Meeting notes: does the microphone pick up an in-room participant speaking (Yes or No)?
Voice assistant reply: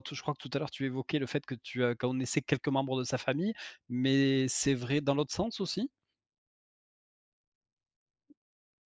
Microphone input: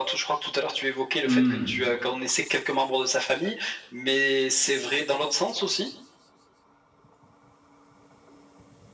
Yes